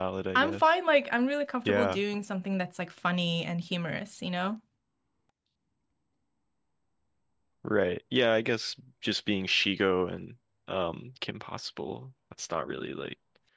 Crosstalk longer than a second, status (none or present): none